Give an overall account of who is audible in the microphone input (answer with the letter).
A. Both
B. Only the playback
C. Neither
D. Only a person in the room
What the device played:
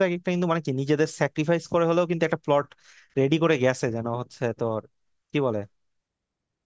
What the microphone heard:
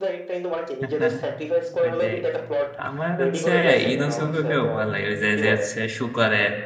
A